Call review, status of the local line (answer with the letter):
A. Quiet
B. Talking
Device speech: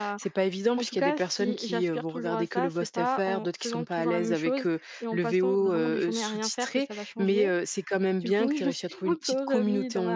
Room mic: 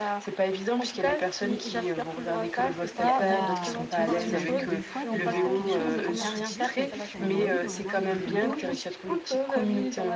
B